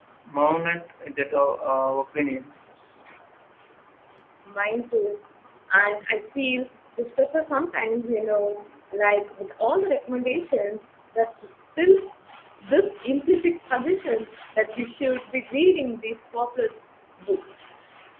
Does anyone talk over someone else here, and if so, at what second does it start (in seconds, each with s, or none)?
none